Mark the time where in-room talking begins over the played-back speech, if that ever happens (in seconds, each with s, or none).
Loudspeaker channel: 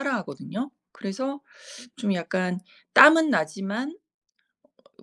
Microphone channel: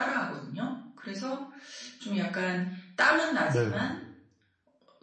3.5 s